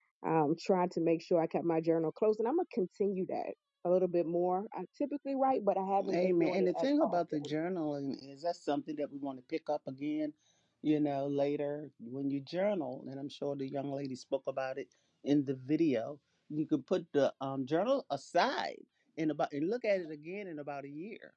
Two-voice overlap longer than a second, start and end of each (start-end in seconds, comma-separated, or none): 6.0-7.5